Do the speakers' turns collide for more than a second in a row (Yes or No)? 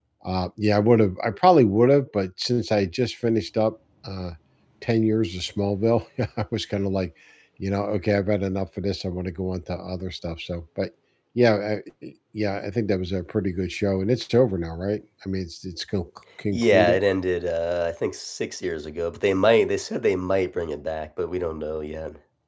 No